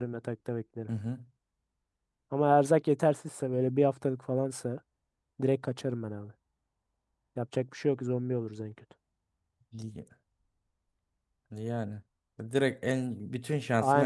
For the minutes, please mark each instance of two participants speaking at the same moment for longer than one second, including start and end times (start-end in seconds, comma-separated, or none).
none